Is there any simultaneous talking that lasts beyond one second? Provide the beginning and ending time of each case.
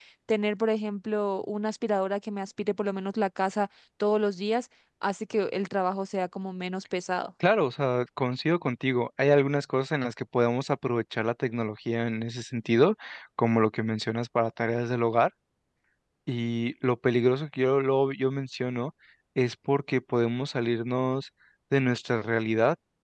none

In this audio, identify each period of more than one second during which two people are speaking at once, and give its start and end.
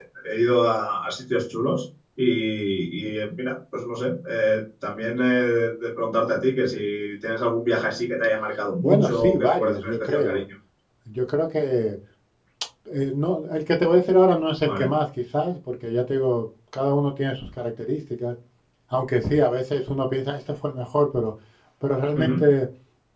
8.8-10.4

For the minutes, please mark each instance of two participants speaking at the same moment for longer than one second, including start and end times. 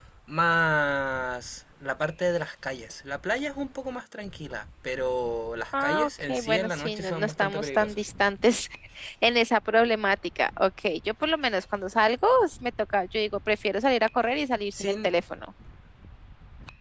5.7-8.0

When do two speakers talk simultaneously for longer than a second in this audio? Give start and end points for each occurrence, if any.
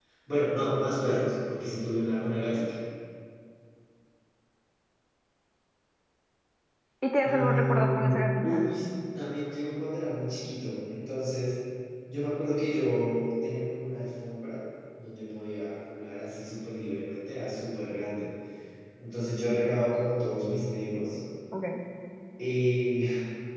7.2-8.7

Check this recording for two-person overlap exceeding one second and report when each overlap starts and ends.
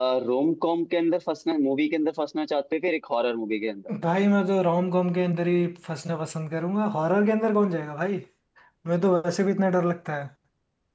none

